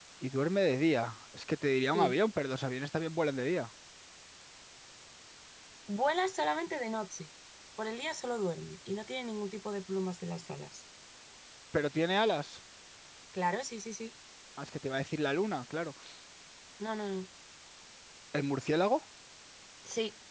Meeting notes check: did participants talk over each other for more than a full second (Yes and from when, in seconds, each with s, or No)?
No